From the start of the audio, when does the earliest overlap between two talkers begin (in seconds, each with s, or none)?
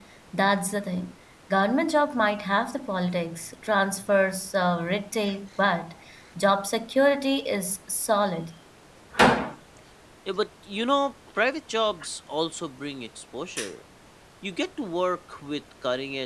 none